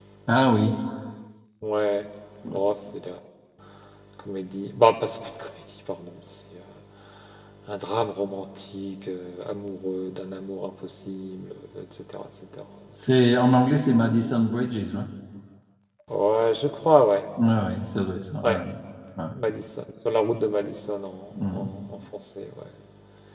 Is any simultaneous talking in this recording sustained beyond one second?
No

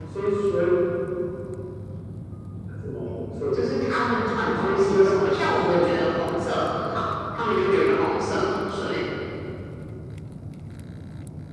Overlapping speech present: Yes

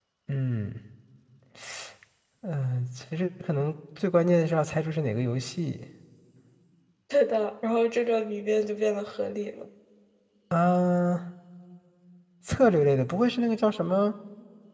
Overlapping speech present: No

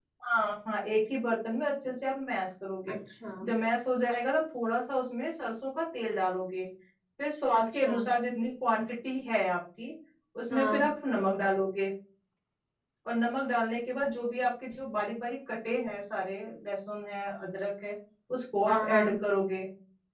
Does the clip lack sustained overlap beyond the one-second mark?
Yes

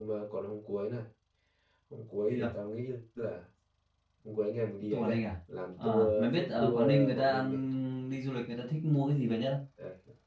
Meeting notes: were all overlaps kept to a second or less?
No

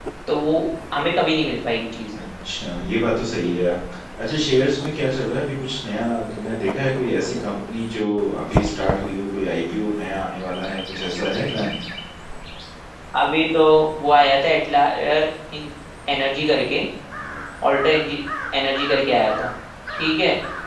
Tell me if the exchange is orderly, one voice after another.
Yes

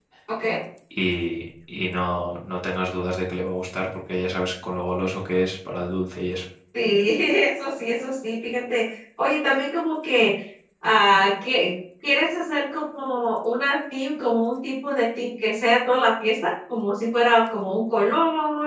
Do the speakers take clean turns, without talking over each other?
Yes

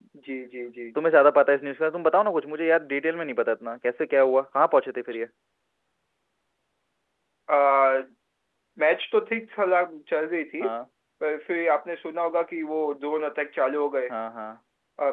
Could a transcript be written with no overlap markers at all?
Yes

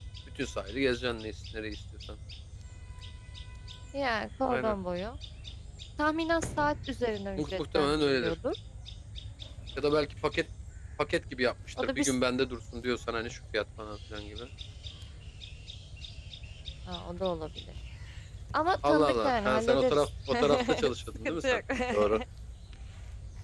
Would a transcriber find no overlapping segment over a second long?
No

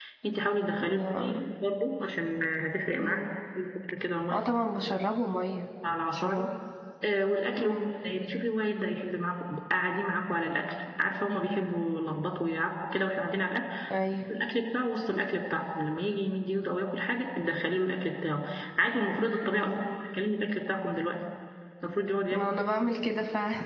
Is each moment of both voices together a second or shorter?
Yes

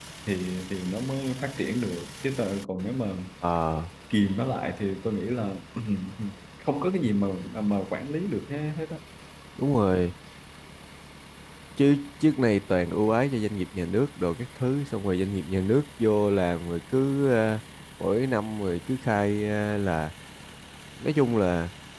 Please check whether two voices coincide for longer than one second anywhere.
No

